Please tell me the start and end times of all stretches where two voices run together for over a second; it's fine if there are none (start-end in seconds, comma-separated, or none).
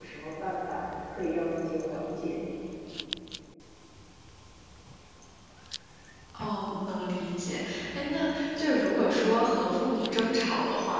none